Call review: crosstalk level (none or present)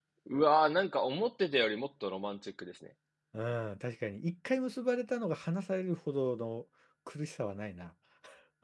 none